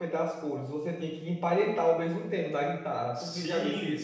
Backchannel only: No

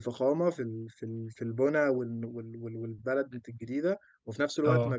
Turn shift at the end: No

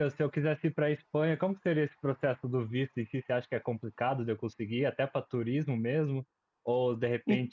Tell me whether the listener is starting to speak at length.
No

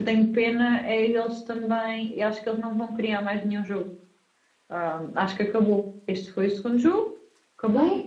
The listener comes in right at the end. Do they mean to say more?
No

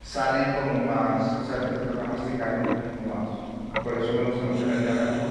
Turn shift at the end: No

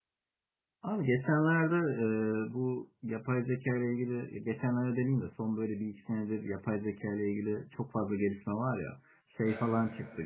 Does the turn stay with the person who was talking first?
Yes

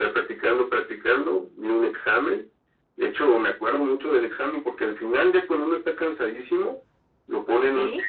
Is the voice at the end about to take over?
No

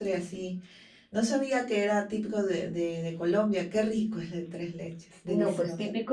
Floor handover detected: Yes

